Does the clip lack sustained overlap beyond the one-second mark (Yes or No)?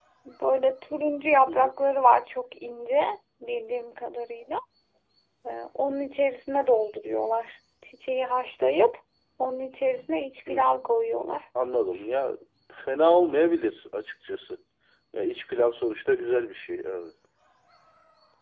Yes